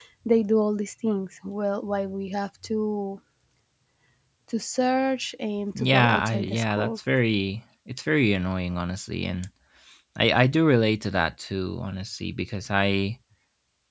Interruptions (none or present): present